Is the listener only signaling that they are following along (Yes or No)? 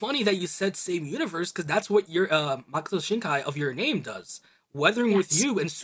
Yes